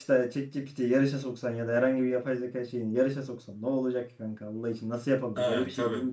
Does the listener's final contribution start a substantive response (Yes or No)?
Yes